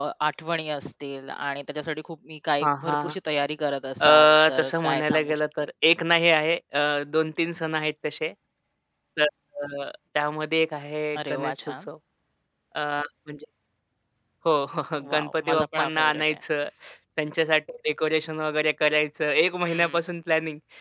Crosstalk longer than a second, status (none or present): present